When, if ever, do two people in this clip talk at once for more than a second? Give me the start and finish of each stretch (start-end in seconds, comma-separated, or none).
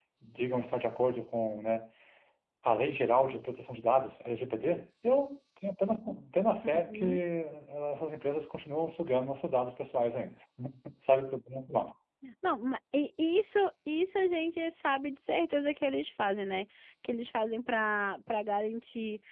none